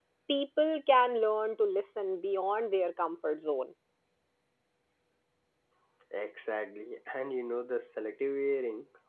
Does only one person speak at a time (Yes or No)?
Yes